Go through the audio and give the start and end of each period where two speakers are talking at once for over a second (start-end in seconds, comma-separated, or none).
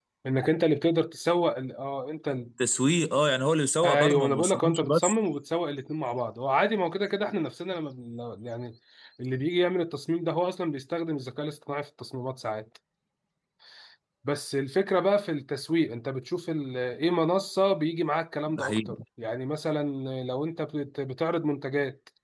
3.8-5.2